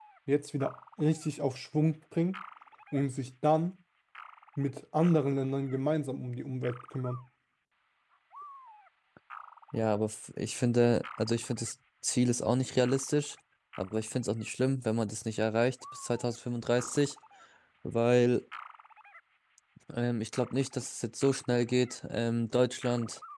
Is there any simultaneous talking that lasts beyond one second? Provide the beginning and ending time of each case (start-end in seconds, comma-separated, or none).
none